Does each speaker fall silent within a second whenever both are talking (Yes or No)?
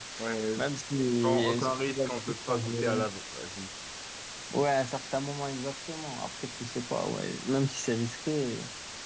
No